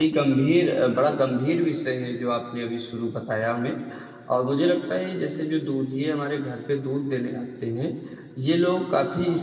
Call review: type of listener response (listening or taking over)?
listening